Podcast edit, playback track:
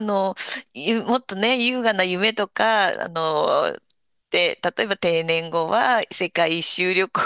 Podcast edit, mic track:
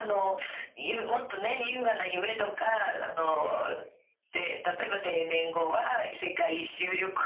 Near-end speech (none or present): none